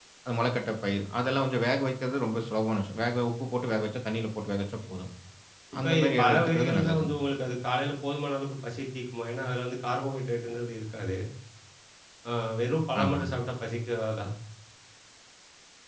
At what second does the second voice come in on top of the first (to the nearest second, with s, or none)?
6 s